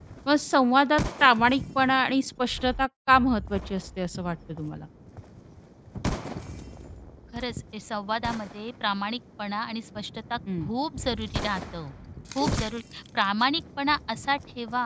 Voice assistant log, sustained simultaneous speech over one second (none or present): none